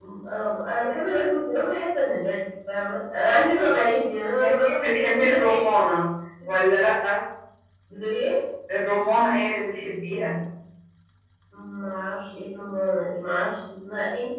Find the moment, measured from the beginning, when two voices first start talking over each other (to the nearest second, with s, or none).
4 s